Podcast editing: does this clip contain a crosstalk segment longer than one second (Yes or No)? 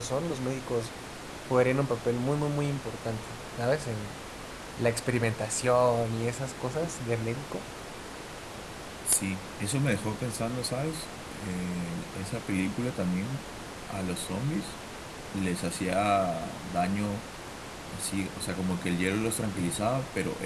No